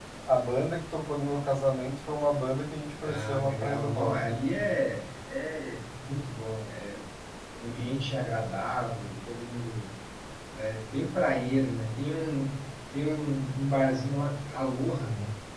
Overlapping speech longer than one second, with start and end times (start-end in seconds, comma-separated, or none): 3.0-4.3